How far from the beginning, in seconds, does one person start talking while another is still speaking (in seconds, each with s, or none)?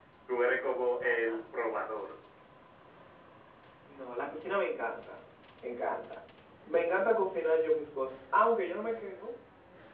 none